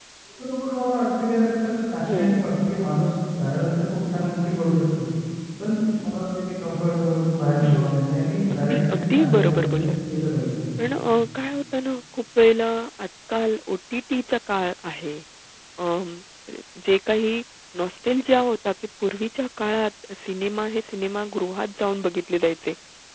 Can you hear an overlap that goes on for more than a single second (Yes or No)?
Yes